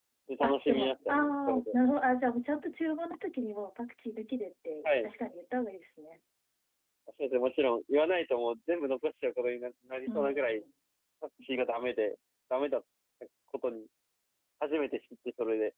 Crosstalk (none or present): present